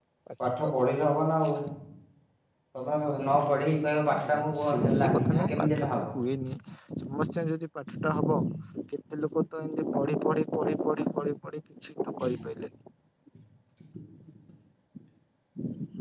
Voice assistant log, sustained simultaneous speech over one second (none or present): present